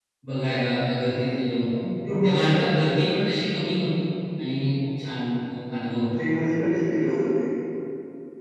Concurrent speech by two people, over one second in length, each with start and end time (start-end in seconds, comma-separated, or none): none